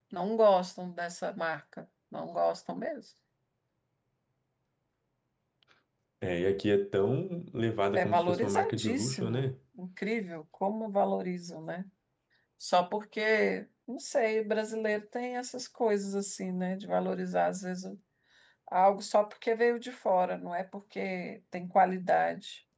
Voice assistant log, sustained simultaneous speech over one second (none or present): present